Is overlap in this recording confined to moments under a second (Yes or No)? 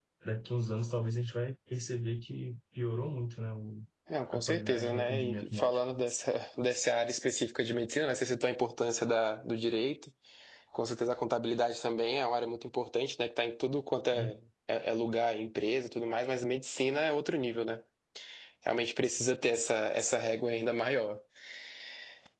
No